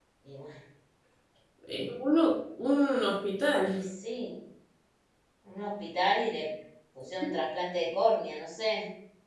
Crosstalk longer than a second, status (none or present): none